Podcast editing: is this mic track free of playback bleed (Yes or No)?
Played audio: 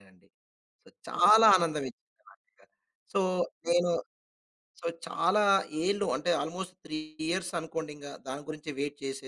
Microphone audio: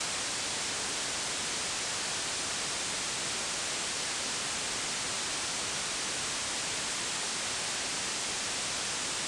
Yes